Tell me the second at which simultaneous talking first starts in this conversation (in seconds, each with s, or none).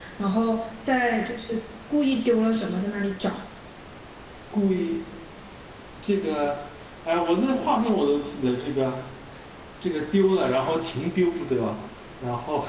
none